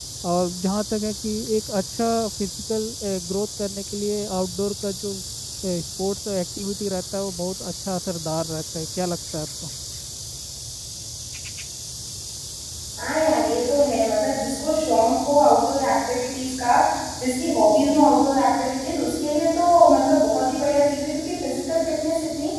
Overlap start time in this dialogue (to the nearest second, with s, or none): none